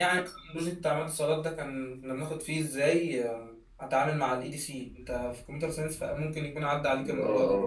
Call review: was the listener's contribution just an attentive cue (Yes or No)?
No